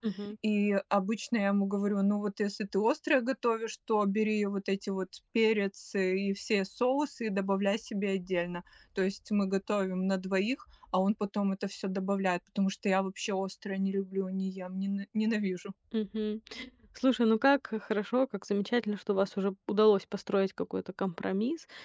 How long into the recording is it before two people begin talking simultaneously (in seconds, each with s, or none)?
none